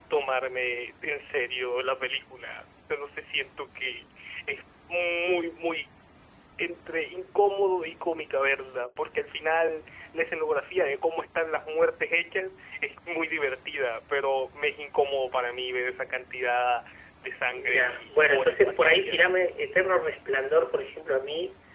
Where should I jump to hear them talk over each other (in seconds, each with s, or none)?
17.6 s